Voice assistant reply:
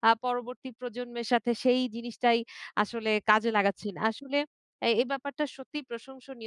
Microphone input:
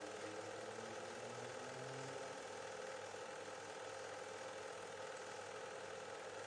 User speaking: No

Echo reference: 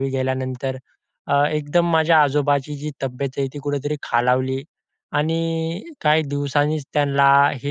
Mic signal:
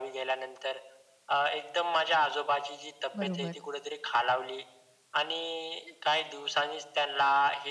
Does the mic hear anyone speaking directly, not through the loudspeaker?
Yes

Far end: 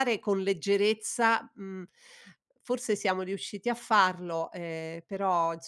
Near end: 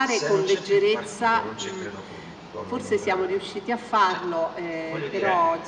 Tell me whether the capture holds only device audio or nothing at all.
No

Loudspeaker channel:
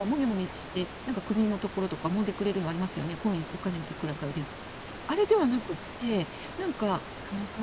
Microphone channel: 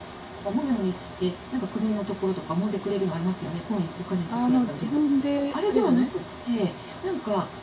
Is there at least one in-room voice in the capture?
Yes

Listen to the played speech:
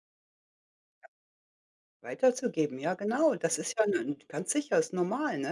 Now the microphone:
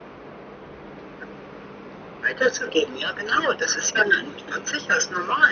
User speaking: No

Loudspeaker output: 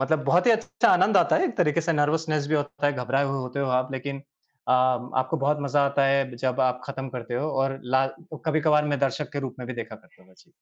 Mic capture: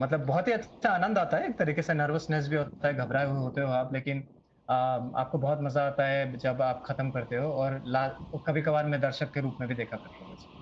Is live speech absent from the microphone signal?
Yes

